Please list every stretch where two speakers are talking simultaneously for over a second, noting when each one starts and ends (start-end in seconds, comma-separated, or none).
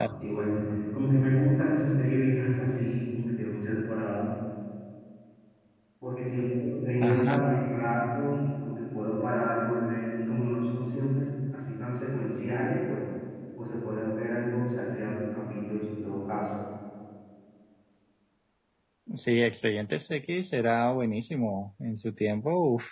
none